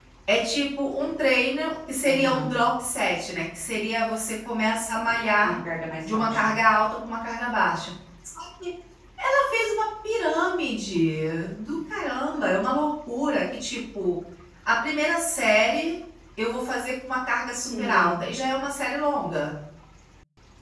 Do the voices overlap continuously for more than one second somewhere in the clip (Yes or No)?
No